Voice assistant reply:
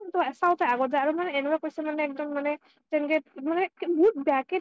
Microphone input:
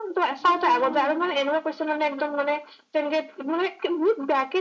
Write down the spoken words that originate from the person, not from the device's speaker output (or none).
নাই